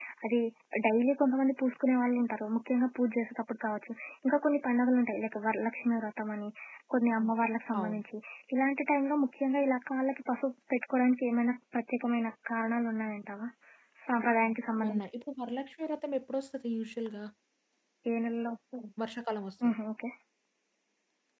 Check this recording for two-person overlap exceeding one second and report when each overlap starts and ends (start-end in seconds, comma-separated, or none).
none